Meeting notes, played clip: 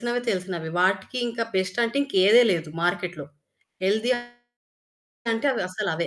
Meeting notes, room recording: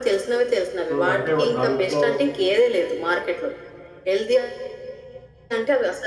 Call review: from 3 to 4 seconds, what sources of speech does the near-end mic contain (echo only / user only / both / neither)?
echo only